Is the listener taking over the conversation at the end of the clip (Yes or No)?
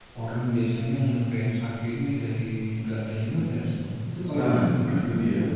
Yes